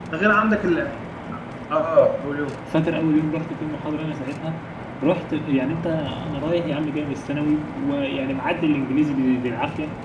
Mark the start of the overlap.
none

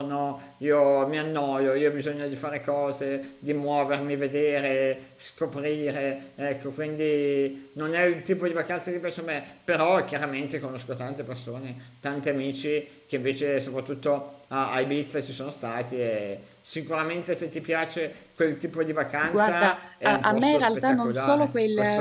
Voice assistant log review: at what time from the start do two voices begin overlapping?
19.2 s

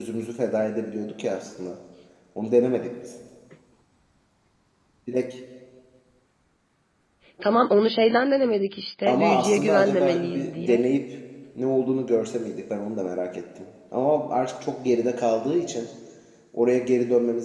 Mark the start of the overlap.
9.1 s

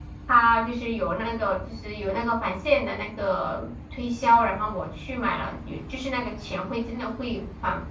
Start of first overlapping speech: none

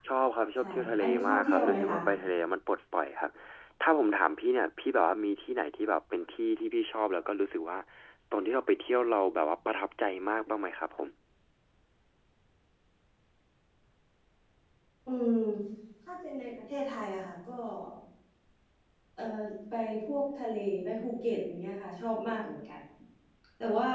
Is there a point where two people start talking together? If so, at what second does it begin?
0.6 s

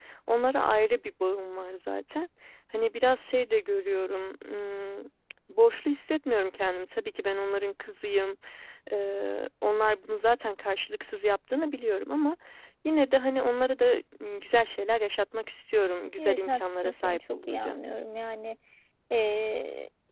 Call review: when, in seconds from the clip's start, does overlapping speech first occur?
16.2 s

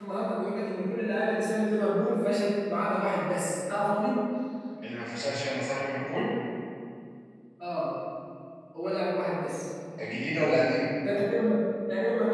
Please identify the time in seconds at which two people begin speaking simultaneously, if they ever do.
none

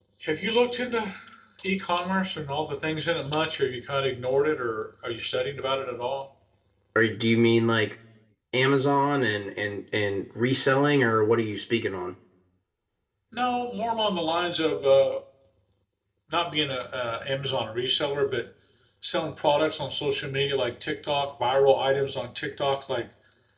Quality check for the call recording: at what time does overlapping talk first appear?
none

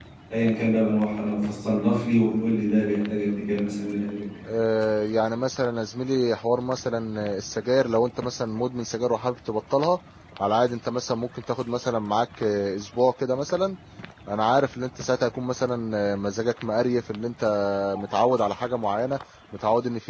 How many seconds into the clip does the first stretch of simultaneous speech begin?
none

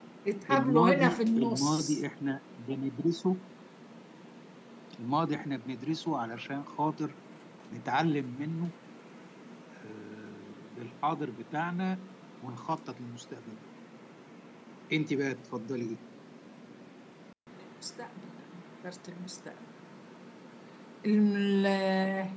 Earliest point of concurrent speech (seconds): 0.5 s

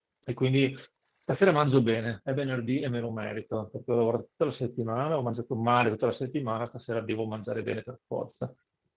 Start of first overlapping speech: none

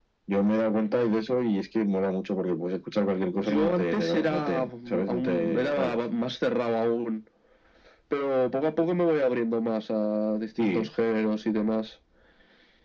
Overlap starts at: 3.4 s

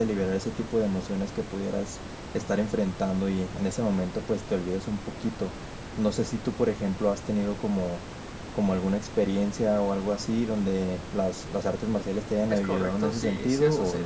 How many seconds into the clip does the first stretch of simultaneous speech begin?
12.5 s

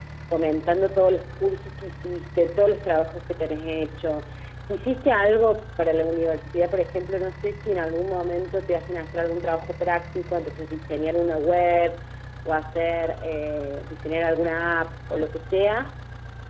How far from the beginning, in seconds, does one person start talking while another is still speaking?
none

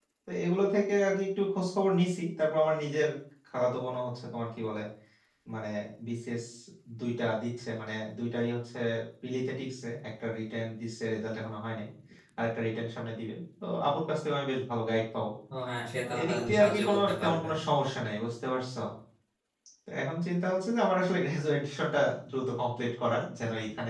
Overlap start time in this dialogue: 16.2 s

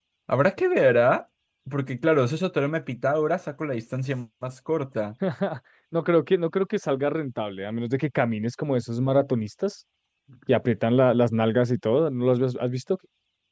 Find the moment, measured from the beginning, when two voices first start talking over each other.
none

